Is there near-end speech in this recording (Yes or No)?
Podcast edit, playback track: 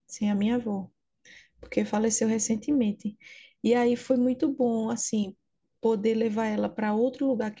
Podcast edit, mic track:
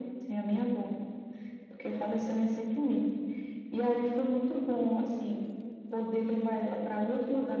No